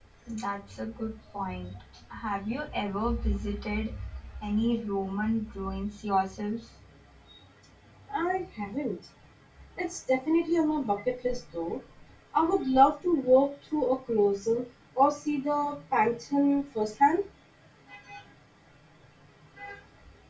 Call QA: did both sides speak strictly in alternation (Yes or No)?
Yes